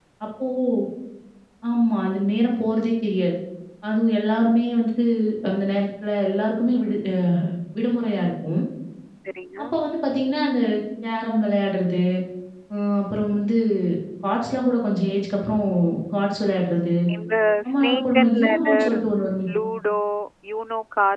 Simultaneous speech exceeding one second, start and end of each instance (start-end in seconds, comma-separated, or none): 17.7-18.9